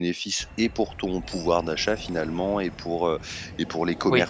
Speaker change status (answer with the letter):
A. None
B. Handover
A